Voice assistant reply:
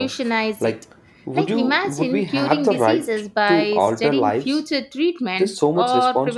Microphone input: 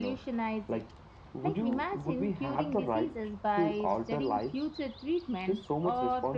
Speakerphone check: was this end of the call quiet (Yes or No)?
Yes